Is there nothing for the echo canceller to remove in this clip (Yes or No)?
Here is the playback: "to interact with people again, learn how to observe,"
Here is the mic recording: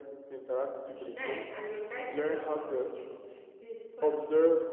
No